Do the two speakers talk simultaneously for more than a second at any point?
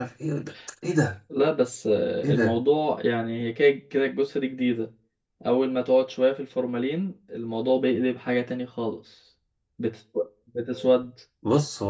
No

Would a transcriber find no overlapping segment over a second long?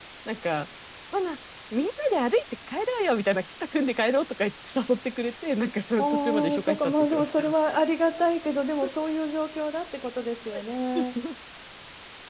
No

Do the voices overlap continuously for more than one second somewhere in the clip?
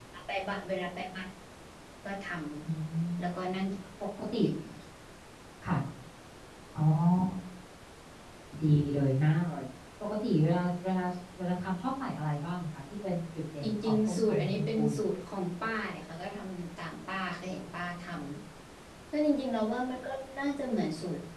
Yes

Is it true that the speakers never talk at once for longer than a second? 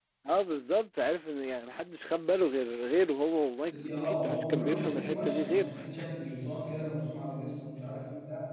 No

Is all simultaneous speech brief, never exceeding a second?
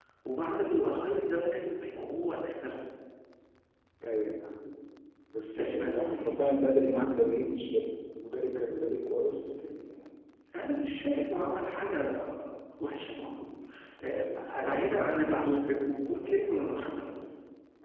No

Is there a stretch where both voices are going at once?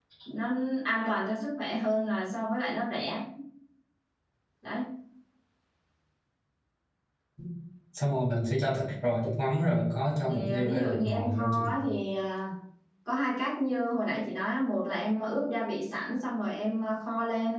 Yes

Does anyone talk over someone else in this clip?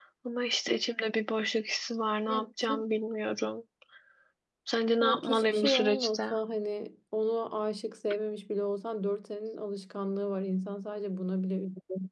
Yes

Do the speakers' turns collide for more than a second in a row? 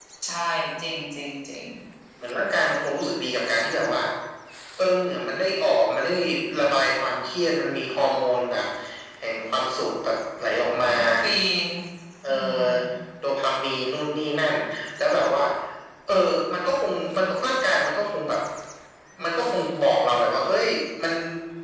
No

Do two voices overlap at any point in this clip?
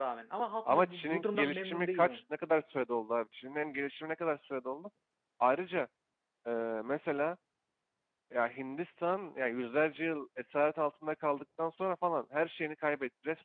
Yes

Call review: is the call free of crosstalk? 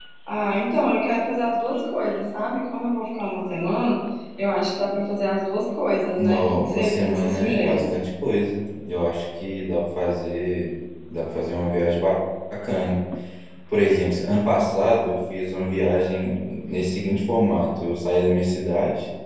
No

